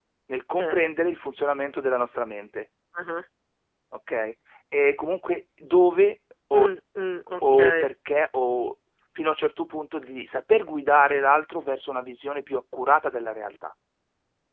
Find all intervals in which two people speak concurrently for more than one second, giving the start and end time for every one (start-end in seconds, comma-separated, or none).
none